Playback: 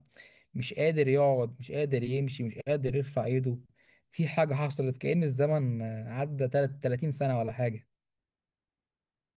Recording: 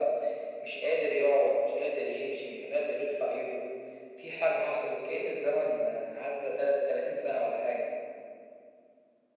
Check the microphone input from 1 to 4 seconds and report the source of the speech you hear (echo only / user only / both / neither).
echo only